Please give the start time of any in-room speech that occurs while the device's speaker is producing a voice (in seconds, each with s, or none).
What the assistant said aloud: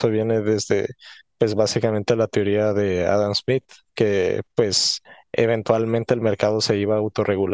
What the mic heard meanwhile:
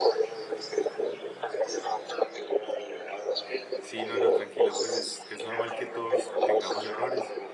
3.8 s